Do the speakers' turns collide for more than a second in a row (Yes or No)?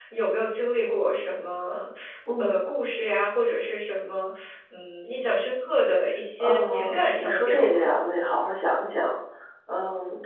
Yes